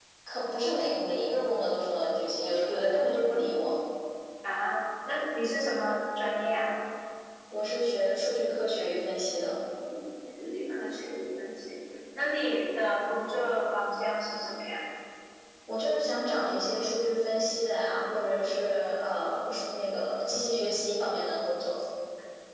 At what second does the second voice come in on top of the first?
none

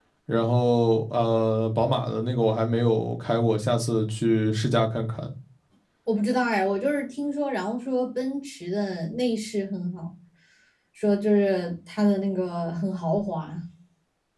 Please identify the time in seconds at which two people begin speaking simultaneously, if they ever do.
none

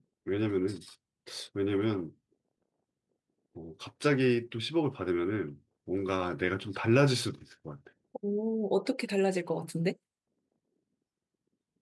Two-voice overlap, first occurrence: none

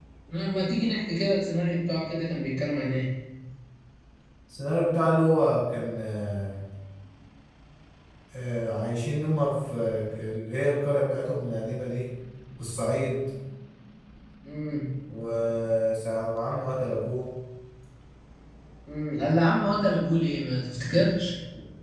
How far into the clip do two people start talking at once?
none

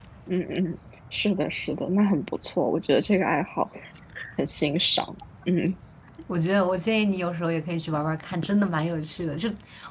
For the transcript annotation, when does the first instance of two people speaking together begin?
none

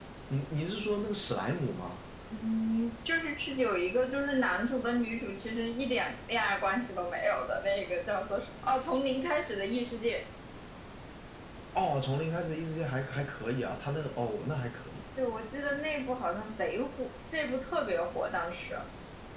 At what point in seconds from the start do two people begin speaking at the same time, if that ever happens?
none

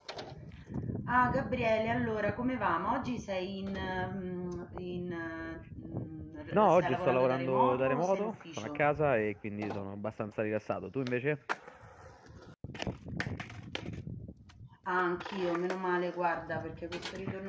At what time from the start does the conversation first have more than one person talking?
7 s

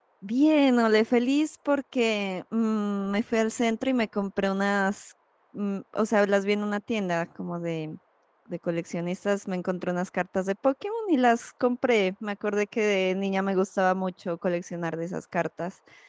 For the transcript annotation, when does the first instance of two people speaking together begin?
none

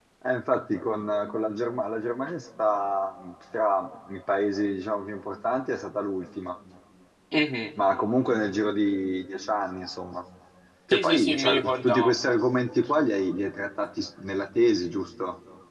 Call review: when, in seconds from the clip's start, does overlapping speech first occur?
11 s

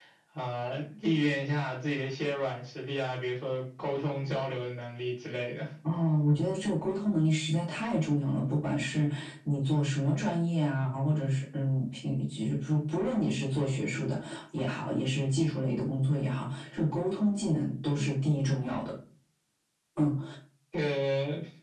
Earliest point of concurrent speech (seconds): none

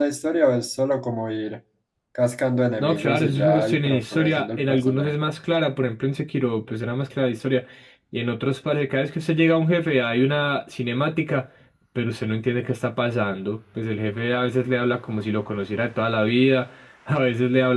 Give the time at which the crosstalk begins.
3 s

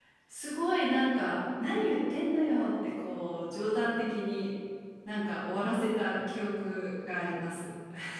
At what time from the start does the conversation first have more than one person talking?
none

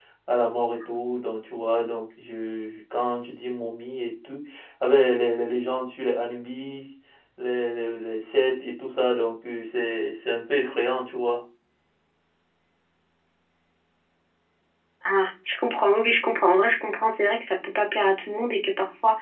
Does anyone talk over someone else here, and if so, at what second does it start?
none

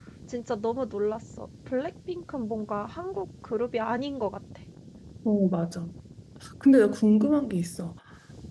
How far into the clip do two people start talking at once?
none

